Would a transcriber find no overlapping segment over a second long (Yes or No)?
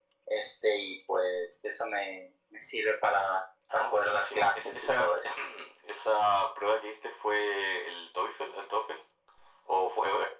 No